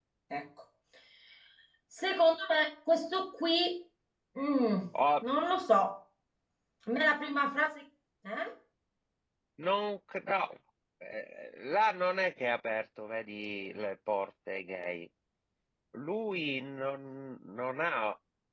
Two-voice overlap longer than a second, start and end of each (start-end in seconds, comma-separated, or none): none